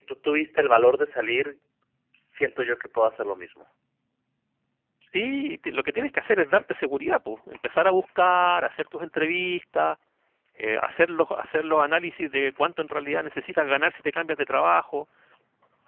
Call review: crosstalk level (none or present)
none